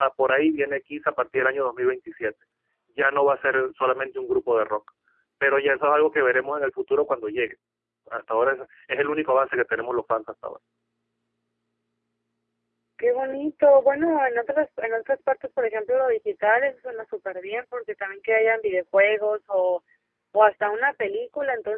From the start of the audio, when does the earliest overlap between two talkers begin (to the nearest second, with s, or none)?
none